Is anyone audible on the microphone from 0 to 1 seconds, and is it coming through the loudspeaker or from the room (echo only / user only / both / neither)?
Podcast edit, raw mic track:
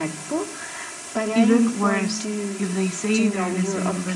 echo only